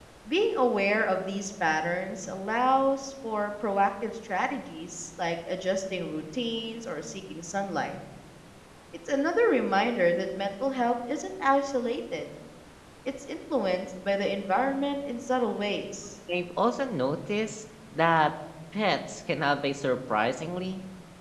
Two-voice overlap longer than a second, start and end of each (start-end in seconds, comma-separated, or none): none